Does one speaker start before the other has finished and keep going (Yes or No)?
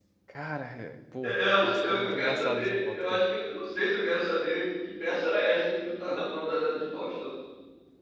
Yes